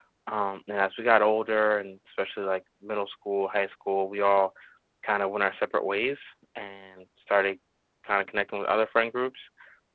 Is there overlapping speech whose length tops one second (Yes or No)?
No